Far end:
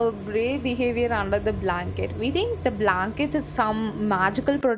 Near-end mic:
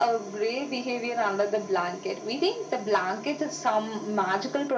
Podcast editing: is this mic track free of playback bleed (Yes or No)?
No